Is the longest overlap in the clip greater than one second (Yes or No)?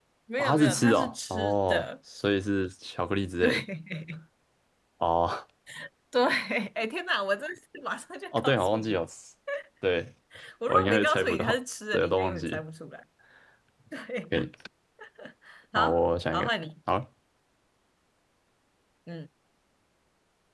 Yes